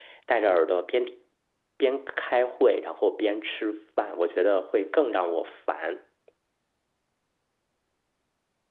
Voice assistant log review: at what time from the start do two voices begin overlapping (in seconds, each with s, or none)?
none